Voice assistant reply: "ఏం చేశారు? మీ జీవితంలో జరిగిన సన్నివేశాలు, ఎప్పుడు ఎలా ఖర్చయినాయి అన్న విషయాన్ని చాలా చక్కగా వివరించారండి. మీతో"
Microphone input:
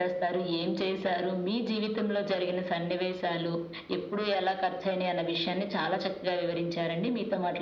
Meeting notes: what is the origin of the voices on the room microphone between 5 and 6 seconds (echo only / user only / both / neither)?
echo only